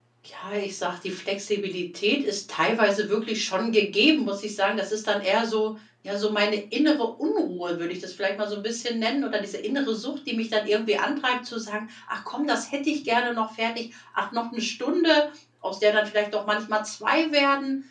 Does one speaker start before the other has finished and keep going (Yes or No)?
No